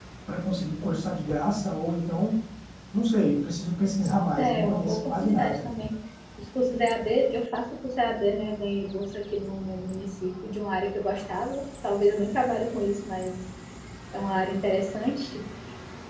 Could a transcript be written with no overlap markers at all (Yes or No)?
No